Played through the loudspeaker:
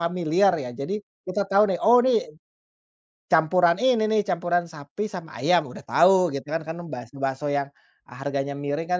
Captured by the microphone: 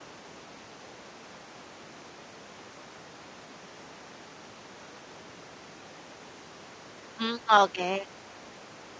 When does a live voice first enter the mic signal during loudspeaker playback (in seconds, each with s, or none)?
7.2 s